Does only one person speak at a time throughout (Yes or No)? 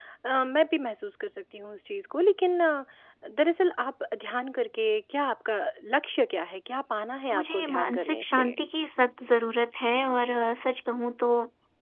No